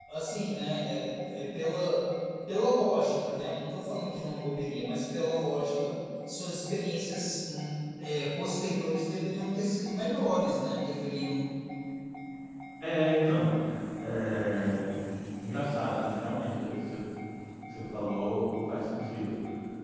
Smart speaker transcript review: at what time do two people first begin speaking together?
none

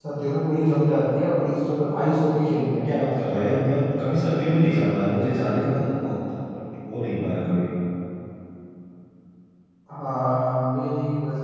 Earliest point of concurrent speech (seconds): none

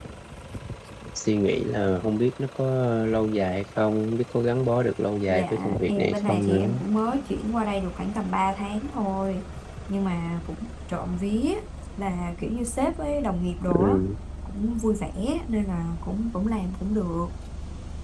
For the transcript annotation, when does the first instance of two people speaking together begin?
5.3 s

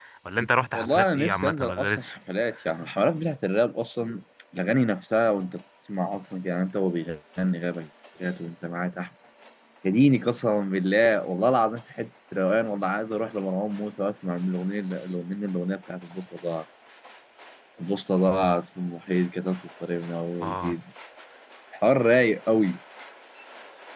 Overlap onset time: 0.7 s

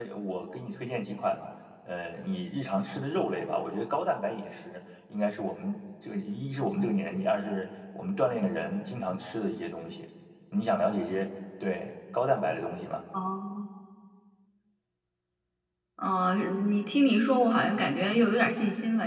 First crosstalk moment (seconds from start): none

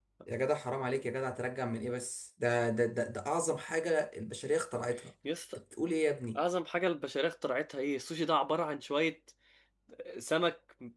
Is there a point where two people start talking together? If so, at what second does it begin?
none

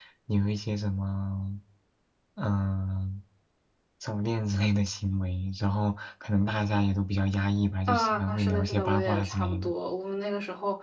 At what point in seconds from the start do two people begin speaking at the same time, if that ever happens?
7.9 s

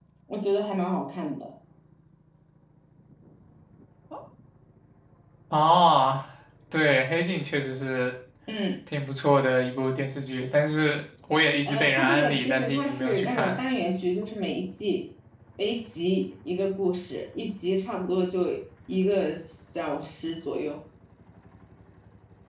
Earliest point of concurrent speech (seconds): 11.7 s

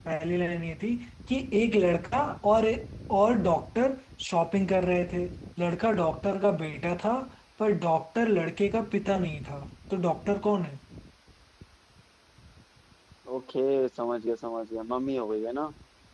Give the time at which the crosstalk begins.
none

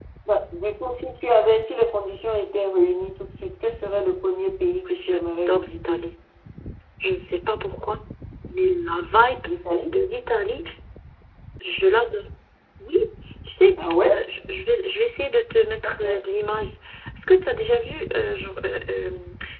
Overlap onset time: 4.7 s

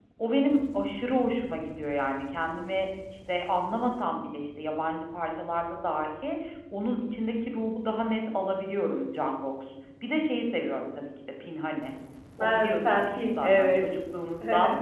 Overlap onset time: 12.4 s

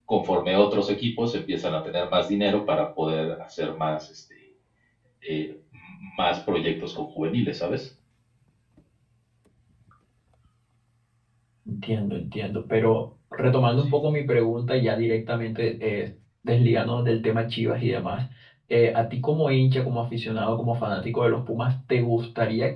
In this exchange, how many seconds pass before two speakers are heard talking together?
none

